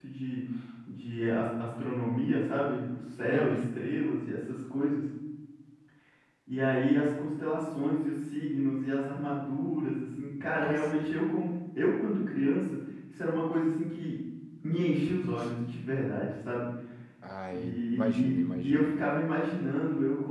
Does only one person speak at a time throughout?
No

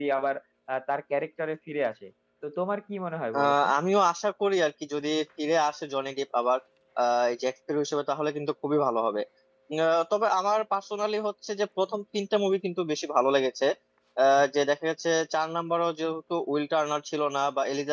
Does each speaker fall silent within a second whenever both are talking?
Yes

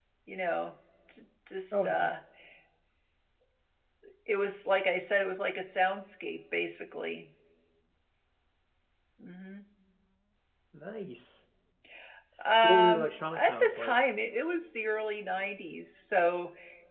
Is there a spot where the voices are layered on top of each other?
Yes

